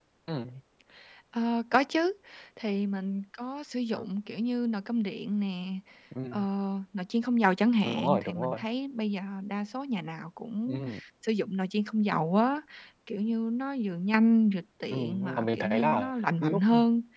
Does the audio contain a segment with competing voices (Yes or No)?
Yes